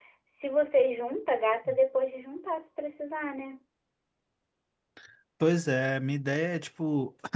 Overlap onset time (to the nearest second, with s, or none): none